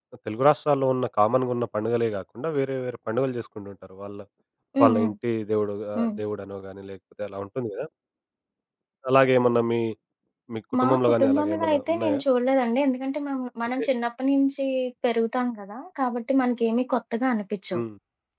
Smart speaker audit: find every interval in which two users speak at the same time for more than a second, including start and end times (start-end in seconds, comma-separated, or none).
10.8-12.2